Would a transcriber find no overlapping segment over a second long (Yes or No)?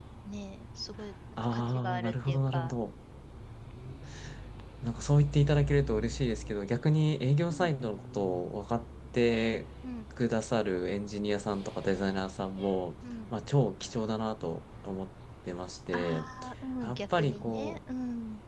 No